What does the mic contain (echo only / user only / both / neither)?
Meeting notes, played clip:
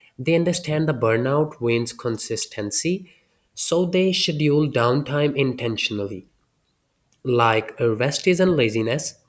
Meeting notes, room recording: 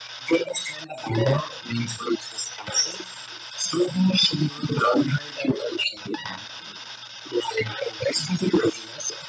echo only